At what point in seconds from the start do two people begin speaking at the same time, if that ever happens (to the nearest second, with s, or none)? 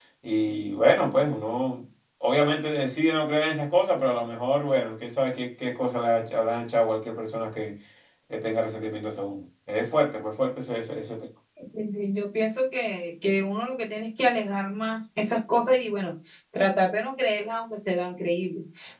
none